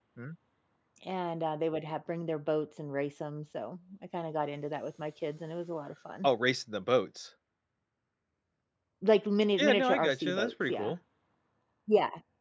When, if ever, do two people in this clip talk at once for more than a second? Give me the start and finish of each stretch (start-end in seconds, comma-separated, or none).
9.6-10.9